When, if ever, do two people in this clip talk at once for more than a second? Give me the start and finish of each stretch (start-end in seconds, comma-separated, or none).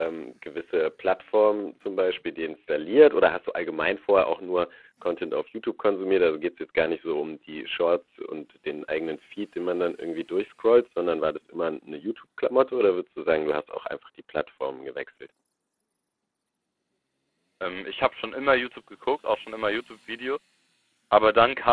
none